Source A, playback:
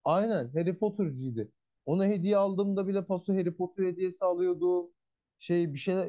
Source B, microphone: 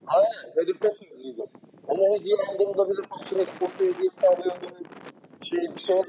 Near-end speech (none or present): none